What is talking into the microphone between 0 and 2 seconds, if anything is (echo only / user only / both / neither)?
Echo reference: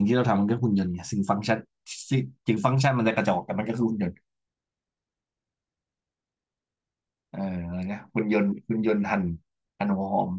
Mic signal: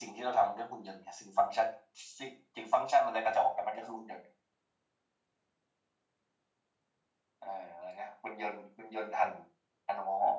echo only